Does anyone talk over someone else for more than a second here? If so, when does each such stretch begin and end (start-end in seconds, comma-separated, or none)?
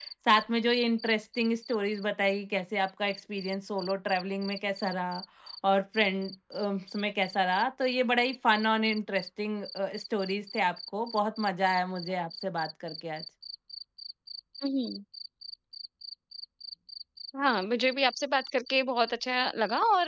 none